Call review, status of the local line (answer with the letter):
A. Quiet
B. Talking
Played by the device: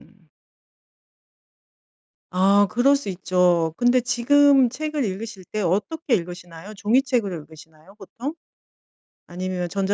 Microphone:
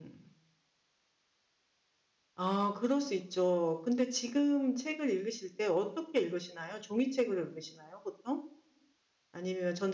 A